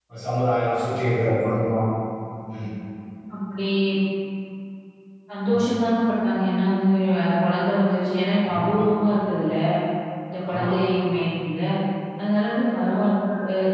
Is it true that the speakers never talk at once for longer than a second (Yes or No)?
Yes